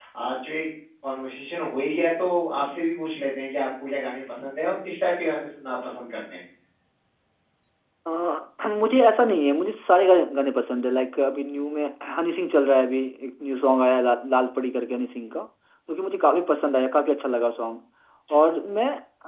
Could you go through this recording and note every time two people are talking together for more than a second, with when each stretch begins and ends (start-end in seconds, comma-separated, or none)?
none